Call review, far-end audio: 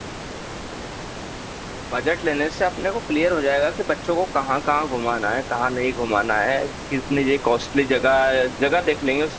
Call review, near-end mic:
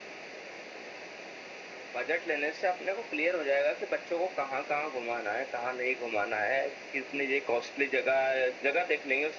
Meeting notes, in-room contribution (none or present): none